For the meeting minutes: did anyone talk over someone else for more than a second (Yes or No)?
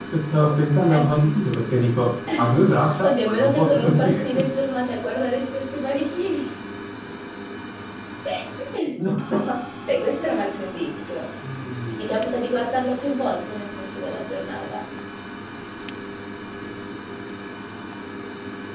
Yes